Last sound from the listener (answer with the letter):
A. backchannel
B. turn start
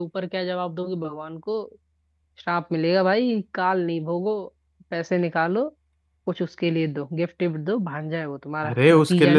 B